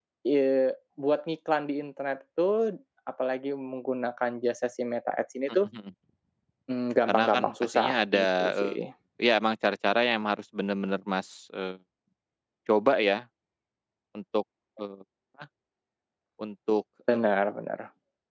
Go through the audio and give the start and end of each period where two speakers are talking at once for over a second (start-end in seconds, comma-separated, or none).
7.1-8.8